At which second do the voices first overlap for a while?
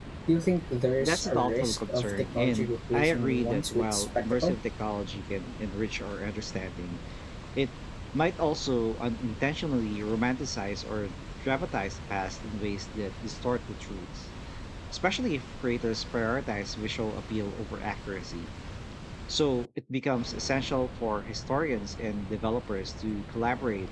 1.0 s

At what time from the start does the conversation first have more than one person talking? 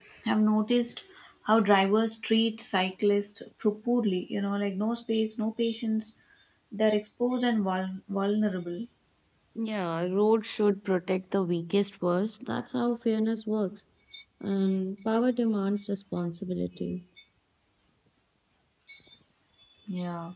none

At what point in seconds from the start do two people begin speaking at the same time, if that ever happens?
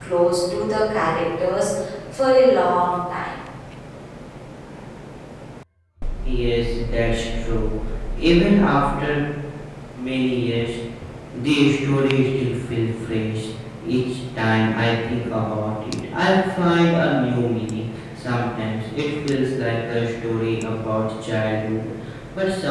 none

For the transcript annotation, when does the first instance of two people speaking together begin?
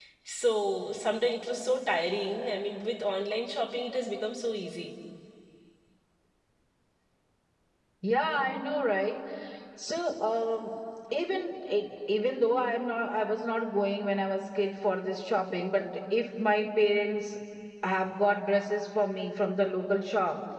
none

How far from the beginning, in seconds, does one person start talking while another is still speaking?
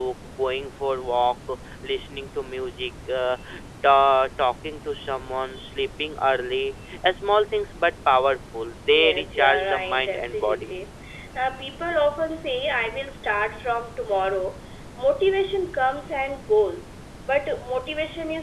8.8 s

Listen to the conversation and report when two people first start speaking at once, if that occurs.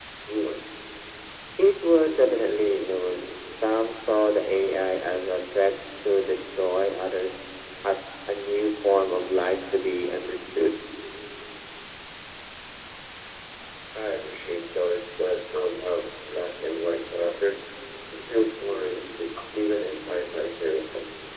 none

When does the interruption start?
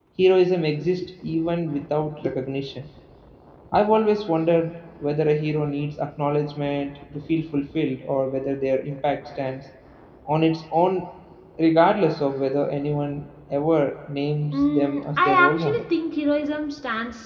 14.5 s

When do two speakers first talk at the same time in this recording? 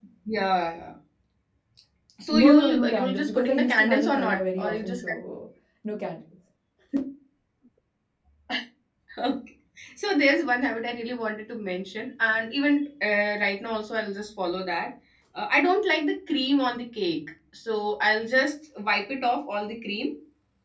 2.3 s

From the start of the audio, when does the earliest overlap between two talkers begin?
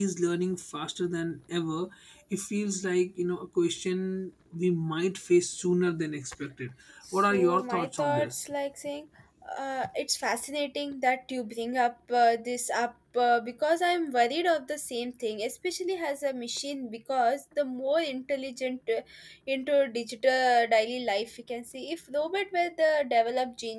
7.1 s

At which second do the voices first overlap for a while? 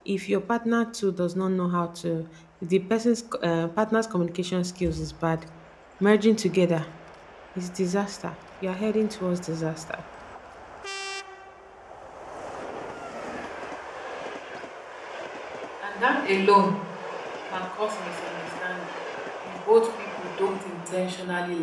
none

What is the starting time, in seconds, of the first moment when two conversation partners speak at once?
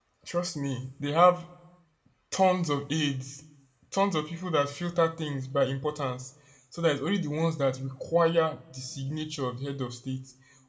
none

